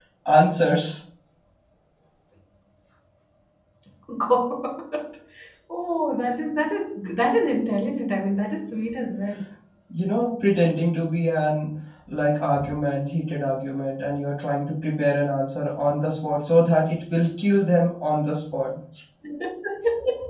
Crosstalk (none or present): none